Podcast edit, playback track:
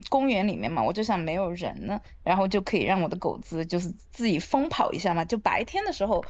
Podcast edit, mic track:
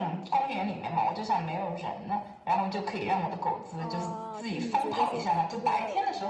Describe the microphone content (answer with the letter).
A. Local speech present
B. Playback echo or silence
A